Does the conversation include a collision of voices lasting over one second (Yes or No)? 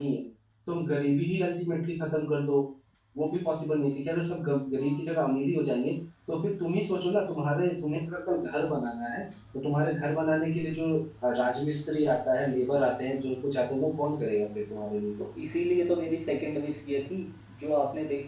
No